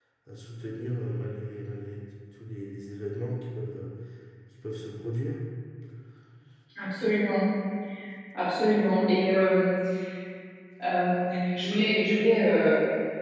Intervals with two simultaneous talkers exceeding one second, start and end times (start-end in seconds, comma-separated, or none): none